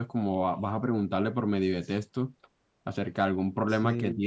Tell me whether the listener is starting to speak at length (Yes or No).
No